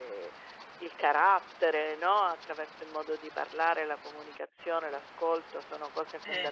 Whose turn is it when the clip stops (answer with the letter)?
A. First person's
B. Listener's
A